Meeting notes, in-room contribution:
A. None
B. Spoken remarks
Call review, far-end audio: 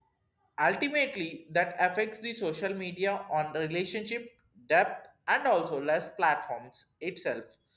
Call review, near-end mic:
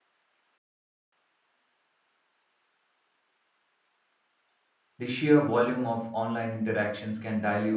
B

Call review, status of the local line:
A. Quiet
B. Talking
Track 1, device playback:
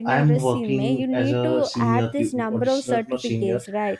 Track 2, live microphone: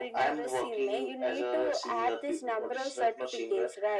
A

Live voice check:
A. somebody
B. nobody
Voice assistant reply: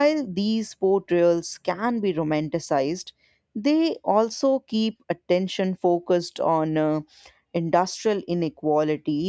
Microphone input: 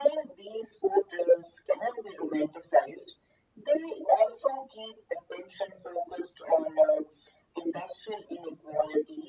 B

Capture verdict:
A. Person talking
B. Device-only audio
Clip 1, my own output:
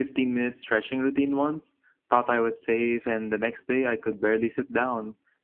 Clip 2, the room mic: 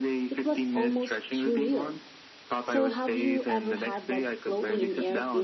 A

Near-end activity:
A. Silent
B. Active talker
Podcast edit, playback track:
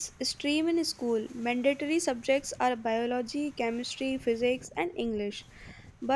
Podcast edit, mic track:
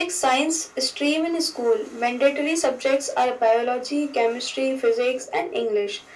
A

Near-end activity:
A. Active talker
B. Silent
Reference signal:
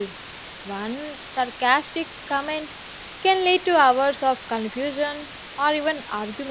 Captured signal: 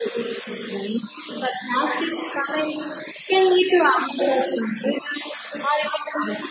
B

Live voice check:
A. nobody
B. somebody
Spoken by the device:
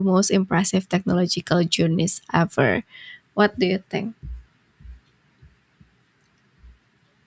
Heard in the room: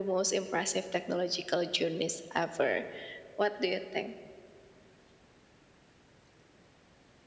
A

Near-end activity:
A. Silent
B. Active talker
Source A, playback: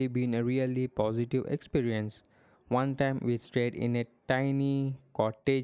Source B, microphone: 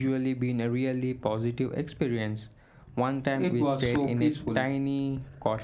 B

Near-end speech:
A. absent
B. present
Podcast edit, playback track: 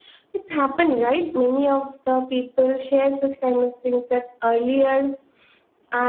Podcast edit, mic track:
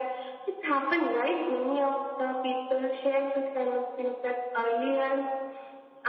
A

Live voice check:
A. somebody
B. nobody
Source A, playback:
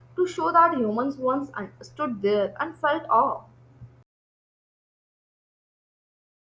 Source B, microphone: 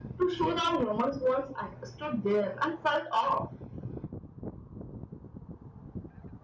B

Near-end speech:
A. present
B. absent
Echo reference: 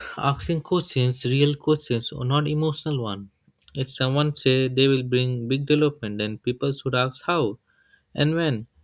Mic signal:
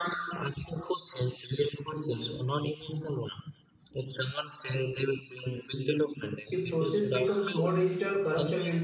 A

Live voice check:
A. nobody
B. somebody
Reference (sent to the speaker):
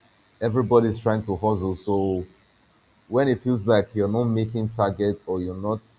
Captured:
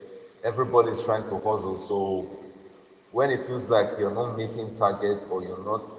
A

